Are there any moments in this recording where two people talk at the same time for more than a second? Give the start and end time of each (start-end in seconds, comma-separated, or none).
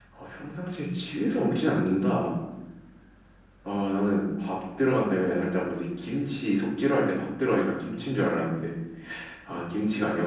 none